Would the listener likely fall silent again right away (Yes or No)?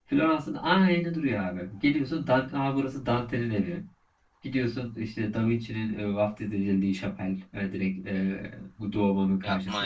No